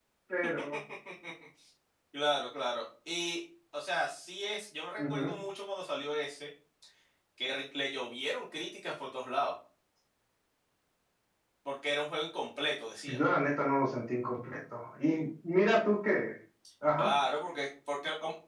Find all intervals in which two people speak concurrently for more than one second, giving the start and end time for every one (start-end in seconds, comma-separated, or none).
none